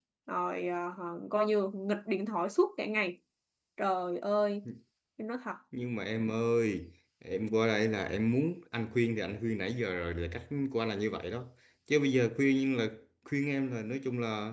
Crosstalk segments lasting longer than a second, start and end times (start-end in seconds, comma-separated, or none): none